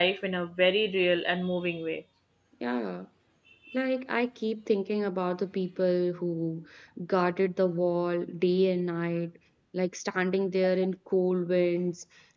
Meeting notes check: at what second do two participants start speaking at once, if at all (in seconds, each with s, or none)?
none